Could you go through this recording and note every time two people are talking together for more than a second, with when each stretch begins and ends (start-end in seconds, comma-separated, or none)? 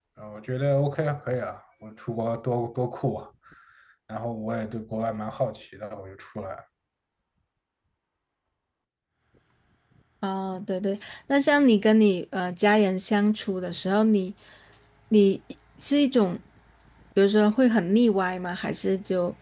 none